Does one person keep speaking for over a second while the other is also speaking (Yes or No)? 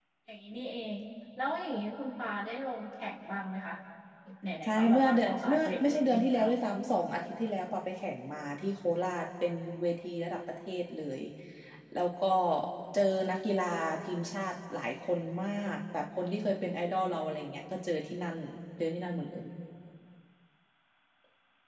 Yes